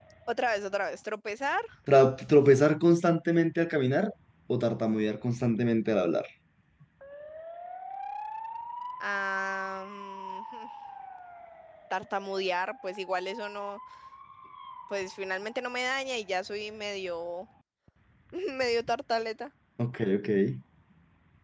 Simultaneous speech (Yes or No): No